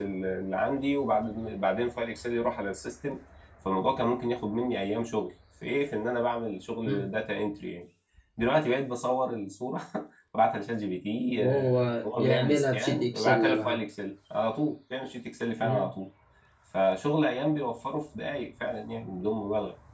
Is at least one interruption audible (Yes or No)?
Yes